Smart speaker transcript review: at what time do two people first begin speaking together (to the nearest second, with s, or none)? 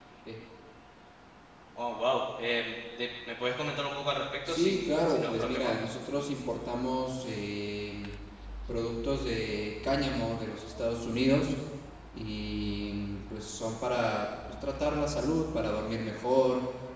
4 s